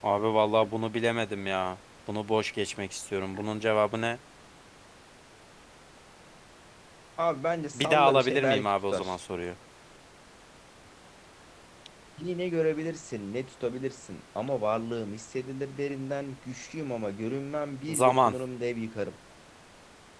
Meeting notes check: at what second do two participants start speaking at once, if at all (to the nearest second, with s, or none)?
8 s